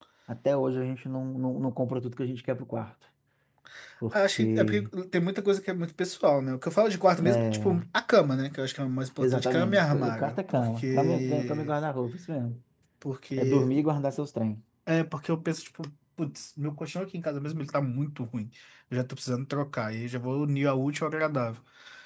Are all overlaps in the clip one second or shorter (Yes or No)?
No